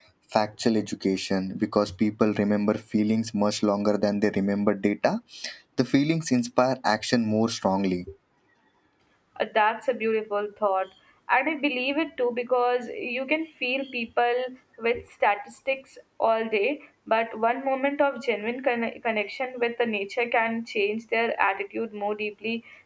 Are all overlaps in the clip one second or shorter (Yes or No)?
Yes